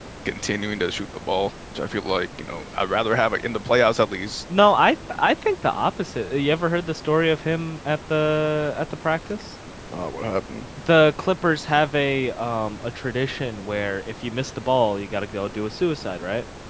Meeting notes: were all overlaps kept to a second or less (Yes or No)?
Yes